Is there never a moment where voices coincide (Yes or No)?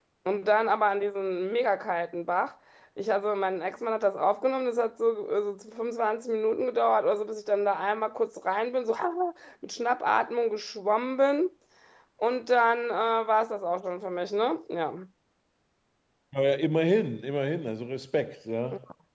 Yes